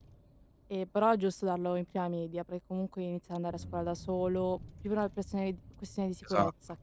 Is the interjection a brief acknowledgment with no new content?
No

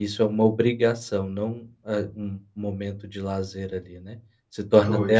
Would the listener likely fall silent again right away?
Yes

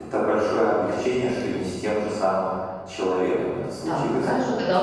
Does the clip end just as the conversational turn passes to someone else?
Yes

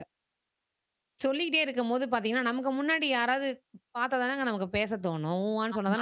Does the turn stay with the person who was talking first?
No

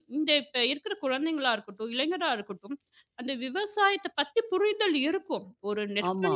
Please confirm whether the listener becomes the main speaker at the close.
No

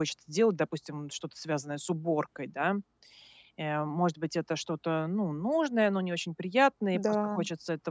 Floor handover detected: No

